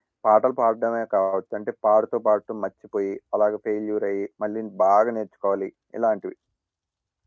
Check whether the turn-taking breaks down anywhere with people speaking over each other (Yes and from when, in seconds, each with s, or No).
No